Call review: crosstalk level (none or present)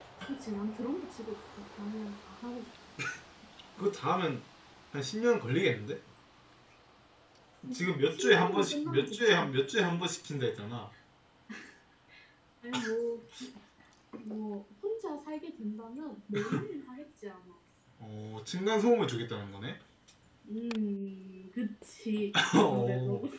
present